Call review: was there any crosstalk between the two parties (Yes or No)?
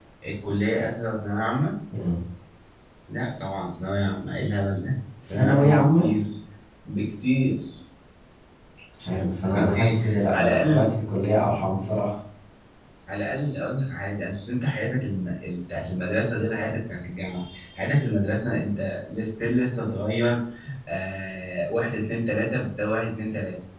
Yes